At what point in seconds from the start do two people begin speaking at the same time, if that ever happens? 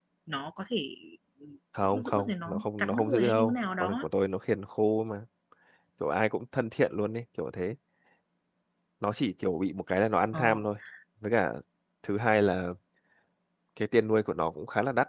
1.8 s

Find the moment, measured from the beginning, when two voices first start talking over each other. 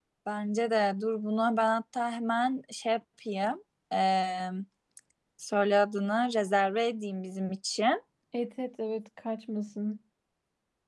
none

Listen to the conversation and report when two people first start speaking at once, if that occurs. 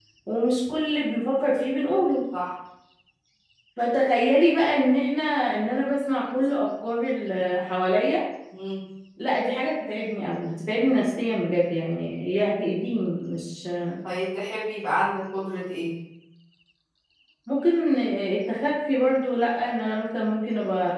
none

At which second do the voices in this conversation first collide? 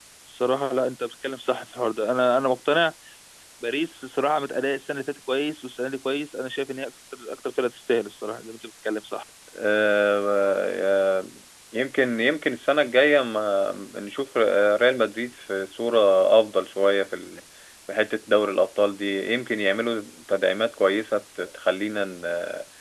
none

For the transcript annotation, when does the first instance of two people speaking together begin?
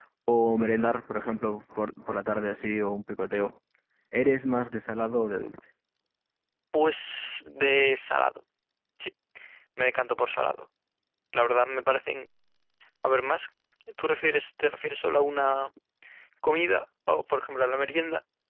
none

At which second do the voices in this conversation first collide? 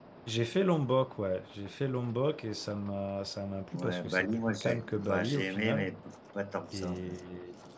3.7 s

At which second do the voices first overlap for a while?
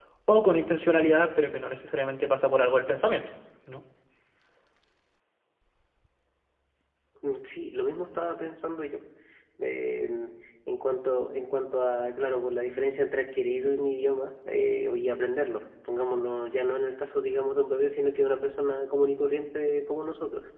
none

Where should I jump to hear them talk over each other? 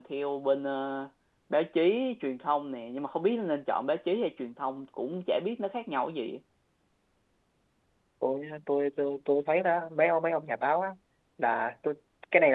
none

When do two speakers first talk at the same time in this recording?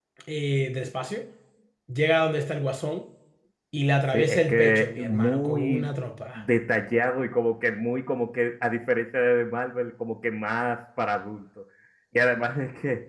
4.1 s

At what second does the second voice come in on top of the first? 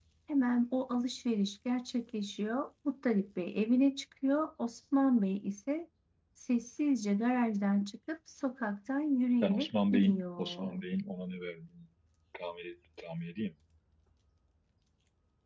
9.4 s

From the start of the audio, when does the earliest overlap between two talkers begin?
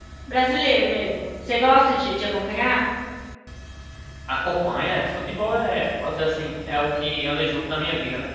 none

